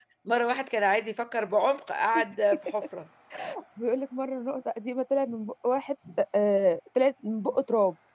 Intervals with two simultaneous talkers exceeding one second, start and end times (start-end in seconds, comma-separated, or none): none